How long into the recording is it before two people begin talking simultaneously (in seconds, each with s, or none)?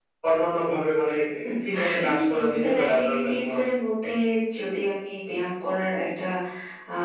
1.7 s